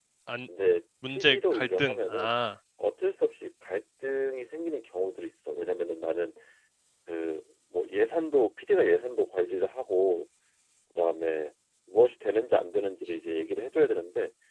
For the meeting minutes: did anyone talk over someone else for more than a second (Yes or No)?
Yes